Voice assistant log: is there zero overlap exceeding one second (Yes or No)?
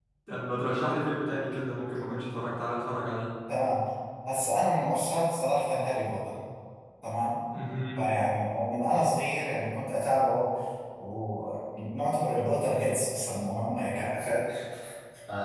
Yes